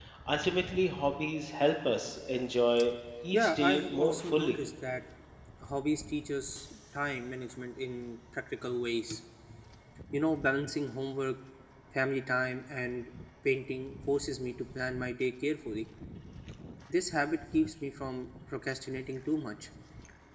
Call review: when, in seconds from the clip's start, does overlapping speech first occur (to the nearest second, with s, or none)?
3 s